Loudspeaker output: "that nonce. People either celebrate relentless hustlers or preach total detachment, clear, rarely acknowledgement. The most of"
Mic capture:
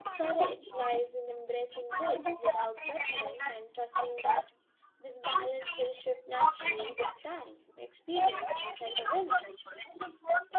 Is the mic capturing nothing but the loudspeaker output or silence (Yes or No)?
No